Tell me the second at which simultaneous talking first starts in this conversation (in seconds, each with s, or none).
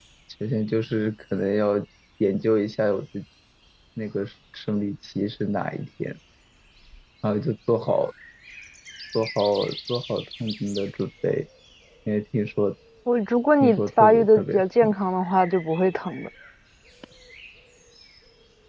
13.6 s